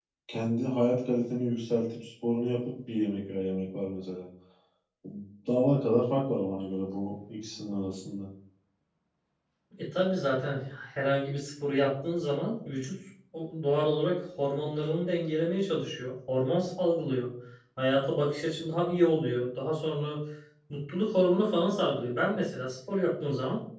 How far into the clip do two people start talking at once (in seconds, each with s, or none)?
none